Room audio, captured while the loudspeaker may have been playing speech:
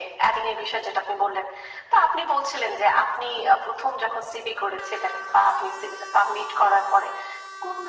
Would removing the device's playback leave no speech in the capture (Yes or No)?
Yes